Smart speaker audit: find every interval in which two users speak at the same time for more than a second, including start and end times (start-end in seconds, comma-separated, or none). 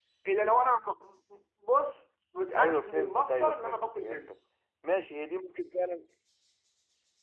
2.6-4.3